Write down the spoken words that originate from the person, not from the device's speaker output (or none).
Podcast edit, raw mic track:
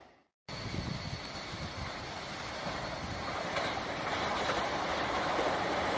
none